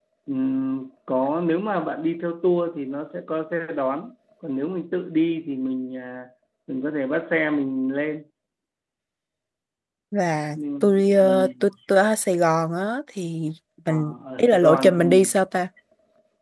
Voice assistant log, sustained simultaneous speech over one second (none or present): present